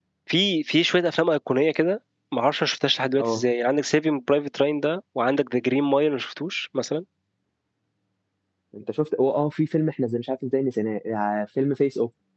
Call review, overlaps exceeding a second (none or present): none